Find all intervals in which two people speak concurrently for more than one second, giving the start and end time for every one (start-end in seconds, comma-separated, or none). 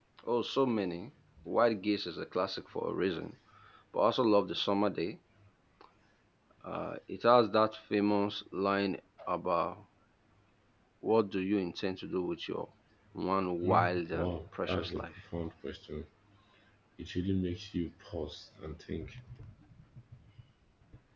13.6-15.2